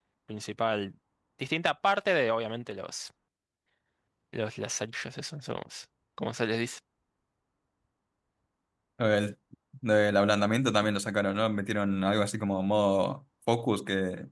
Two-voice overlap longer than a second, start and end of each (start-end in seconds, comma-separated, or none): none